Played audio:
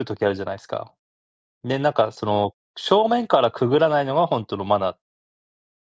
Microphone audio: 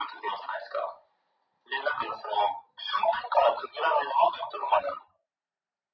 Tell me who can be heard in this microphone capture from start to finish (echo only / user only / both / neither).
echo only